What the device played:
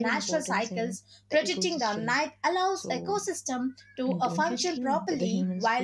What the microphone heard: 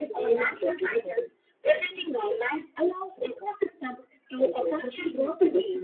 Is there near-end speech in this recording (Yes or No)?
No